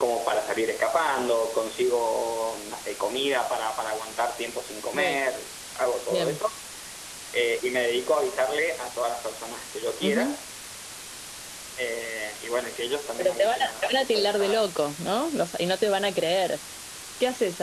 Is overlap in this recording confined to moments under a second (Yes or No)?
No